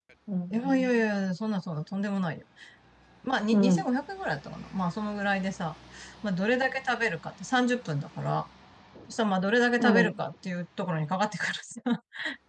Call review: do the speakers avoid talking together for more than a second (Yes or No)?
Yes